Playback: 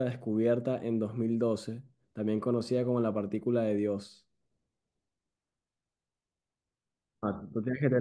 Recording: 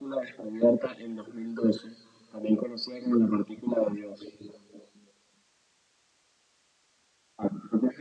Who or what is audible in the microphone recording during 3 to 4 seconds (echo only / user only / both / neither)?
echo only